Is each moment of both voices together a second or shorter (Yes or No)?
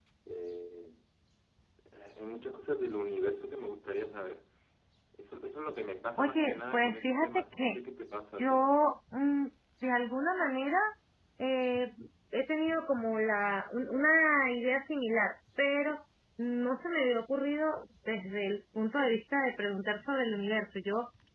No